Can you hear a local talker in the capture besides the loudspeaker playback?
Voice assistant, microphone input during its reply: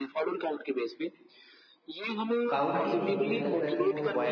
Yes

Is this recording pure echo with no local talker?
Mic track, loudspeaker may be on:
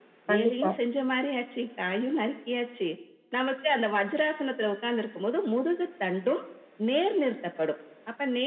No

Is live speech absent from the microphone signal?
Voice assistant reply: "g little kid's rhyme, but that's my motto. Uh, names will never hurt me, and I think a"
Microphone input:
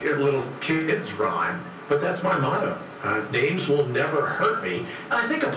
Yes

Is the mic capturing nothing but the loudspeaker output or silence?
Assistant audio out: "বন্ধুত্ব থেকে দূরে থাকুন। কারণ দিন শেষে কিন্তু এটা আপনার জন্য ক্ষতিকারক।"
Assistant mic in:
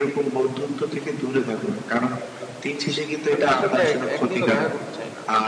No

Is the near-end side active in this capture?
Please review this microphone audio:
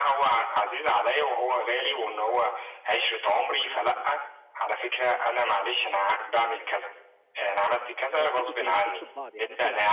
Yes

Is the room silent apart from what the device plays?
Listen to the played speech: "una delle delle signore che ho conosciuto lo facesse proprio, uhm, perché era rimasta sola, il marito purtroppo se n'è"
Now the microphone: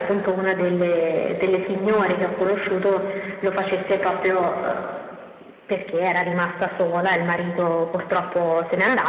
Yes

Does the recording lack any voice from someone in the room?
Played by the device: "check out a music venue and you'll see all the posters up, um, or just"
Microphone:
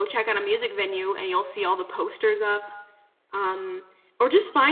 Yes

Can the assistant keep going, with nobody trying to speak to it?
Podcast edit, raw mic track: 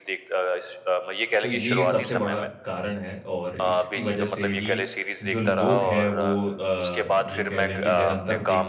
No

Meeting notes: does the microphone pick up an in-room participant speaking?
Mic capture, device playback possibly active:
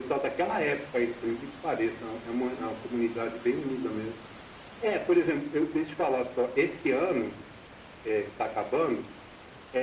No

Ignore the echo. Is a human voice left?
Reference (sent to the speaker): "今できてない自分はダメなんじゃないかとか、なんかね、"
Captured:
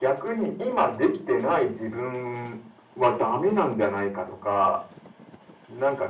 No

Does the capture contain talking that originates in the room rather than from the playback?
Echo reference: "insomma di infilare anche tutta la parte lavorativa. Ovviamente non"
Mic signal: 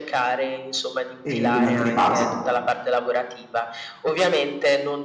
Yes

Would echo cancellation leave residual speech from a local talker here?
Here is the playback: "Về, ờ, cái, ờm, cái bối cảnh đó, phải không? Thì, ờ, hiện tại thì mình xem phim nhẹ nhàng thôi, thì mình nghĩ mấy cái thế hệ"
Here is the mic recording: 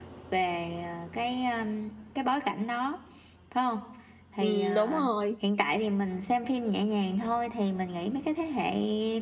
Yes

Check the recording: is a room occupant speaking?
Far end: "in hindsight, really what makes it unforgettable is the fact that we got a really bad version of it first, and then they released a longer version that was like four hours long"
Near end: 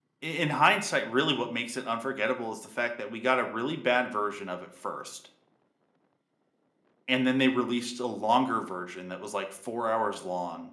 No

